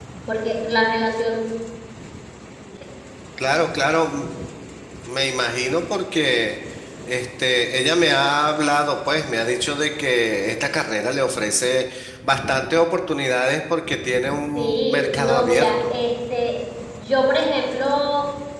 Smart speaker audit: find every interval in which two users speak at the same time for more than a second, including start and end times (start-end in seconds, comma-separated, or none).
14.6-15.9